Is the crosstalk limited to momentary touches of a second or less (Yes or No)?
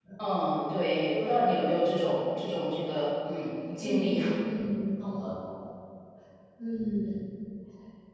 Yes